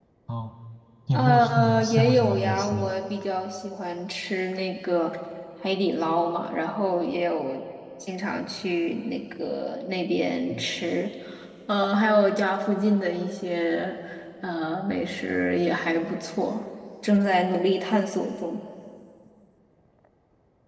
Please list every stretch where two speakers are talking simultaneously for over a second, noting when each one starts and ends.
1.1-2.9

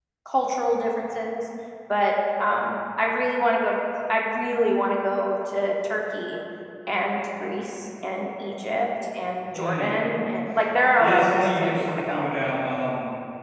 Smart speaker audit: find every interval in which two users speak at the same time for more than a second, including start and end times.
11.0-12.3

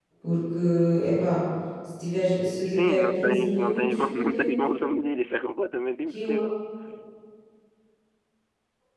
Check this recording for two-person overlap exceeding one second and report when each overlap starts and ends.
2.6-4.6

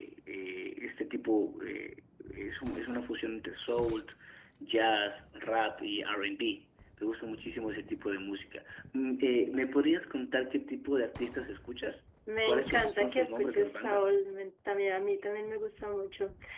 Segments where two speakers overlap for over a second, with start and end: 12.5-14.1

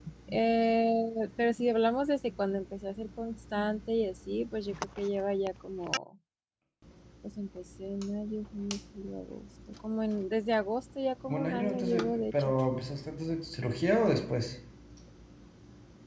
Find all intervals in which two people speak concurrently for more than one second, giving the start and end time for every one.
11.3-12.5

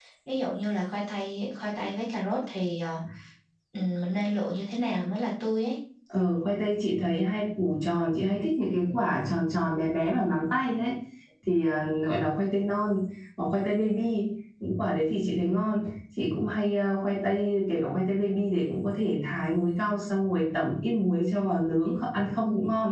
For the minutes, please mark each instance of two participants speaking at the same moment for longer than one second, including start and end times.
none

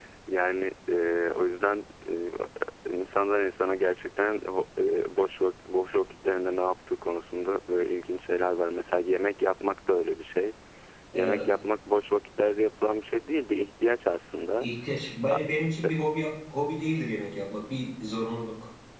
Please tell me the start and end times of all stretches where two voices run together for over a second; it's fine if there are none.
none

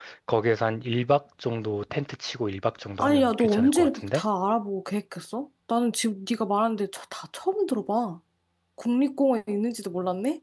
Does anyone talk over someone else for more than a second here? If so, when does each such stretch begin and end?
3.0-4.2

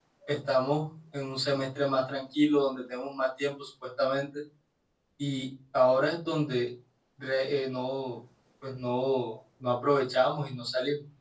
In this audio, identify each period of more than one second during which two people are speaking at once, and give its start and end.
none

